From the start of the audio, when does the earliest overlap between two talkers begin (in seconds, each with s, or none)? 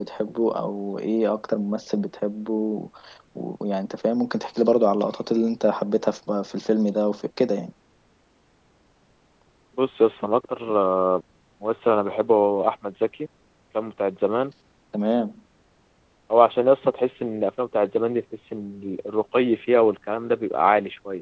none